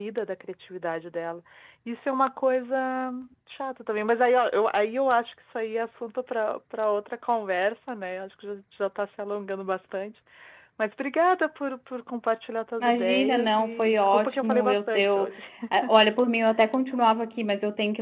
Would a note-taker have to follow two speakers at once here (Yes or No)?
Yes